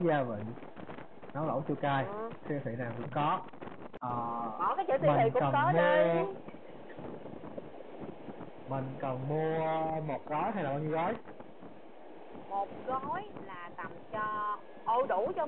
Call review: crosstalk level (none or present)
present